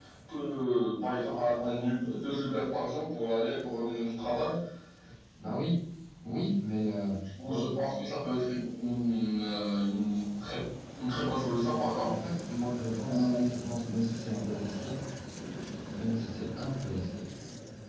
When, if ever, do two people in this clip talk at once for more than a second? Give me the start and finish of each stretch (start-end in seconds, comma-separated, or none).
none